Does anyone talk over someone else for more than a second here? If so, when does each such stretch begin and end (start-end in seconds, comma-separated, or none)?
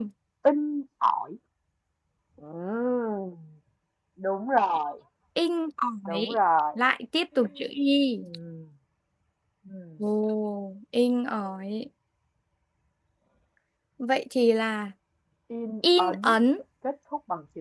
none